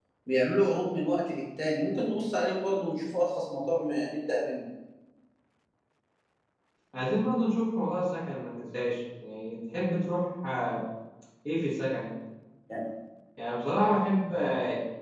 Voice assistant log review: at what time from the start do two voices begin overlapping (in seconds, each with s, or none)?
none